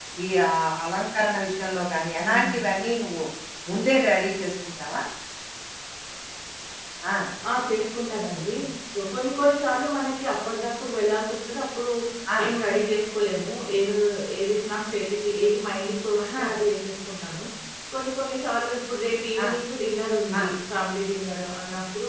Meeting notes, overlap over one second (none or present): none